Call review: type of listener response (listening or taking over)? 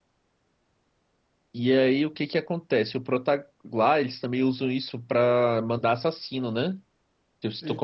listening